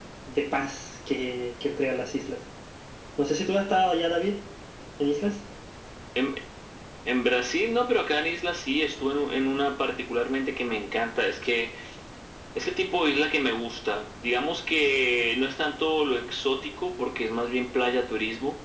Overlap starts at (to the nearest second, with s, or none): none